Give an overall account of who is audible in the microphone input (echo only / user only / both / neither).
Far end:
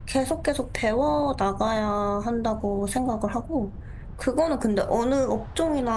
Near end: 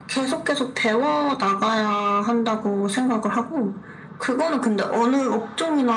echo only